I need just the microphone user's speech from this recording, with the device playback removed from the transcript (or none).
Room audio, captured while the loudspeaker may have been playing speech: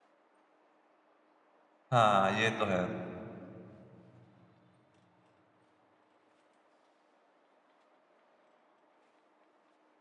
हाँ, ये तो है।